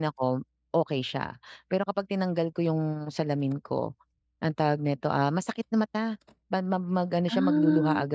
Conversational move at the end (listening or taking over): listening